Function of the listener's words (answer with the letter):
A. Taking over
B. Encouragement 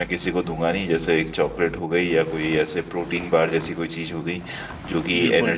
B